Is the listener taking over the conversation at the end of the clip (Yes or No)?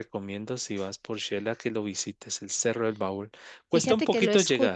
Yes